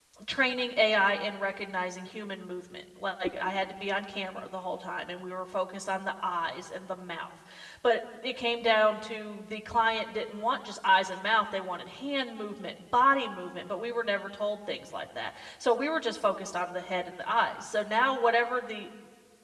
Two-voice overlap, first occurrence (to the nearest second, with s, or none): none